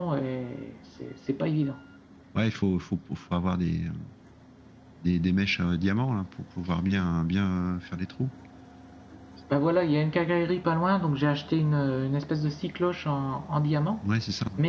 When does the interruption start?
none

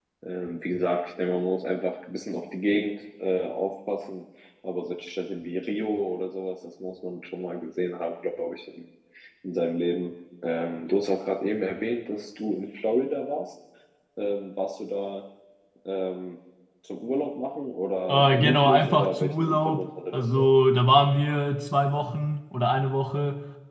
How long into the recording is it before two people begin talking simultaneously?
18.1 s

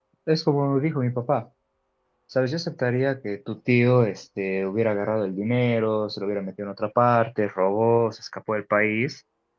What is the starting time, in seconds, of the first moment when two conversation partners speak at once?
none

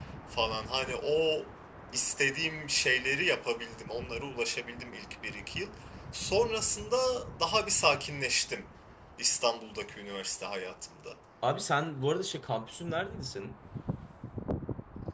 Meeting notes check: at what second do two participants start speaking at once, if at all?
none

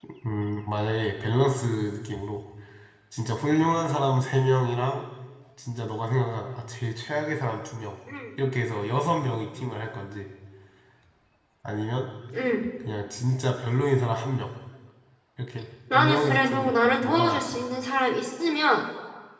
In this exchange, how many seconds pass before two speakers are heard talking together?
15.9 s

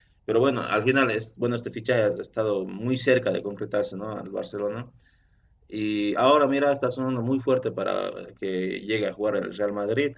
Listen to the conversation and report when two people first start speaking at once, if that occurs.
none

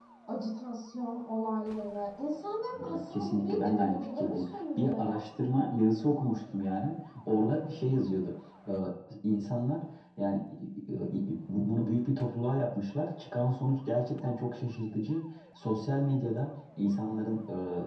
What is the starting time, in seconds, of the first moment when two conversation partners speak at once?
2.7 s

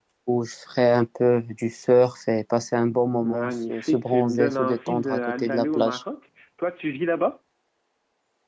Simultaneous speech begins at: 3.2 s

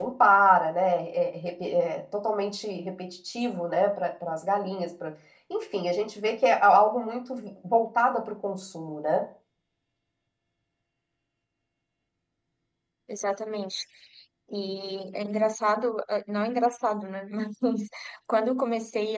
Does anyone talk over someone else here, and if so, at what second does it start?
none

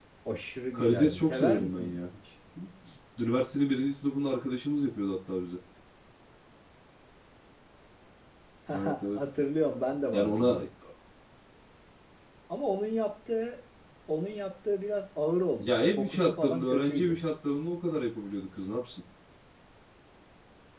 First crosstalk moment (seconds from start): 0.7 s

